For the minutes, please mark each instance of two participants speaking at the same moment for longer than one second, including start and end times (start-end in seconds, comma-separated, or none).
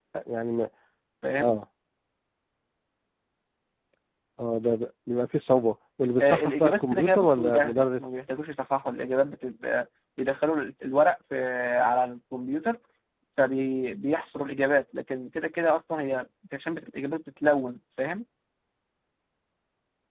6.2-8.0